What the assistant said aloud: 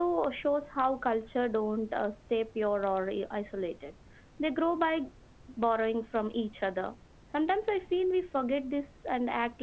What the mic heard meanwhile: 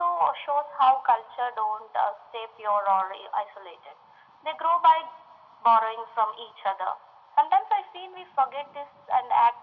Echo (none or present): present